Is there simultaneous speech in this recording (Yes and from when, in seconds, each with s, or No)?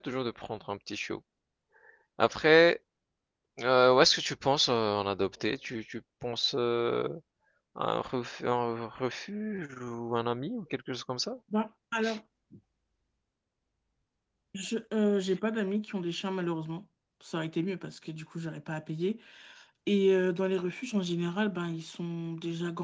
No